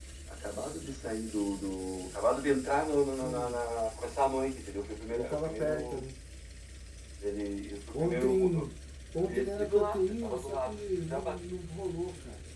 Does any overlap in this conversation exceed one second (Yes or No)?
Yes